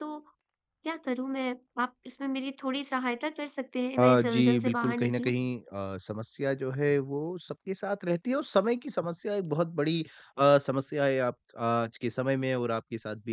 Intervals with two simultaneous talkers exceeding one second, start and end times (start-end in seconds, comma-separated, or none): 4.0-5.3